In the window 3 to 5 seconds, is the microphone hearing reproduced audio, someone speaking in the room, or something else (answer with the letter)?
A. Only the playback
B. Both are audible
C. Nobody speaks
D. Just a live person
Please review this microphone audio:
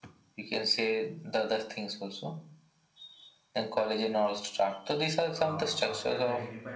A